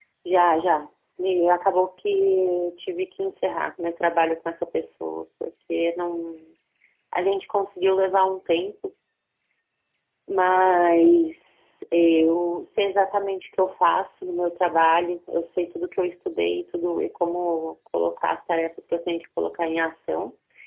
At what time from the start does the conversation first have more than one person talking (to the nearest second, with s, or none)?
none